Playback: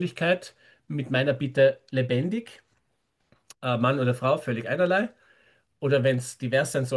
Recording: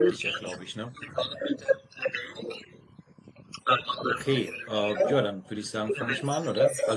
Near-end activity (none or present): present